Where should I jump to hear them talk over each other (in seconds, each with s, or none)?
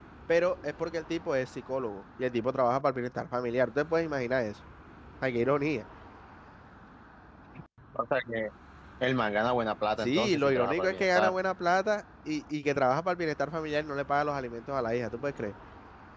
10.0 s